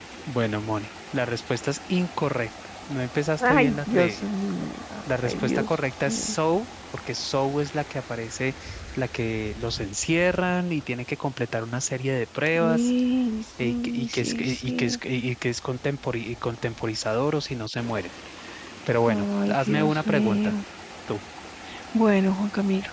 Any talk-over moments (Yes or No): Yes